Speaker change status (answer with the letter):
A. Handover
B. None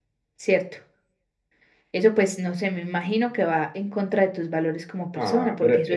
A